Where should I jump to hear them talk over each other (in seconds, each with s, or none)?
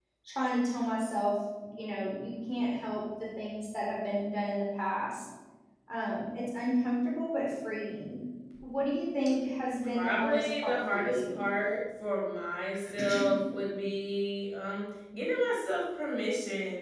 9.9 s